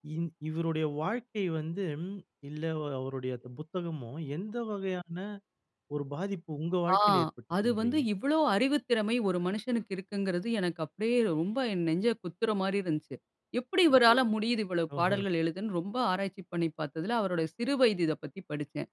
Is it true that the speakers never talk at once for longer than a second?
Yes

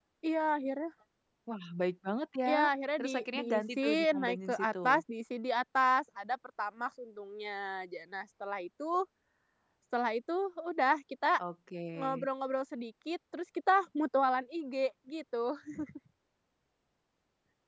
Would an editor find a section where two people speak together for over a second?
Yes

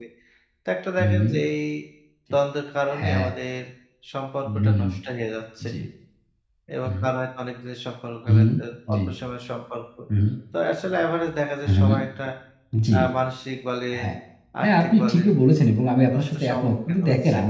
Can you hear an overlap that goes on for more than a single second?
Yes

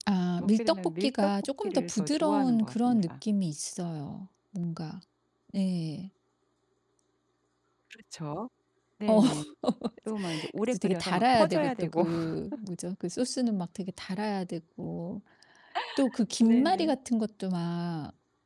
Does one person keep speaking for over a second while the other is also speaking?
Yes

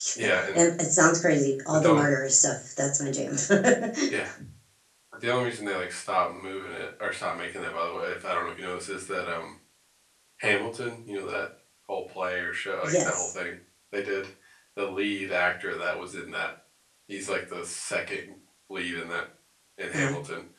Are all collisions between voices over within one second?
Yes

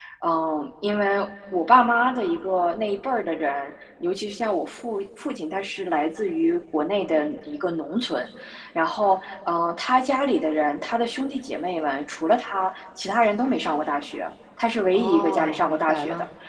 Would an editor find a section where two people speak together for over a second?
Yes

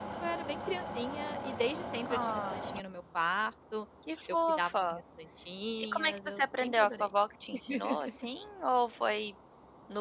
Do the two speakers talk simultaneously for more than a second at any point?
Yes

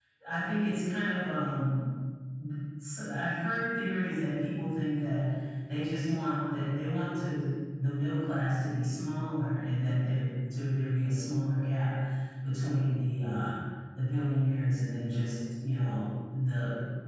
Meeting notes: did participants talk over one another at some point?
No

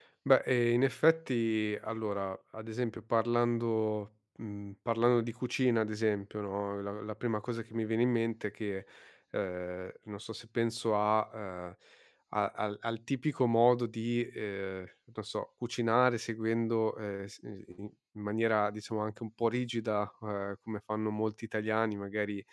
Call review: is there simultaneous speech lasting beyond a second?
No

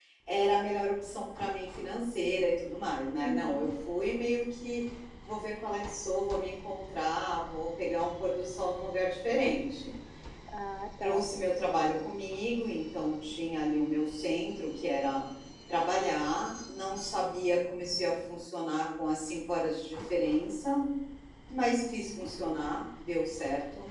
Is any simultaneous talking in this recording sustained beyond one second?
No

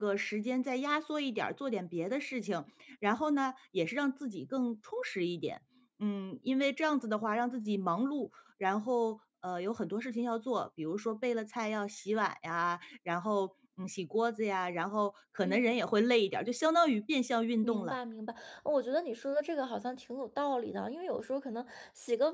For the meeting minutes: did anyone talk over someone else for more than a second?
No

